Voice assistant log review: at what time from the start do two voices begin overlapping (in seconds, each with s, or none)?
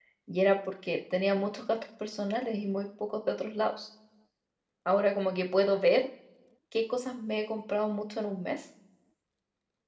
none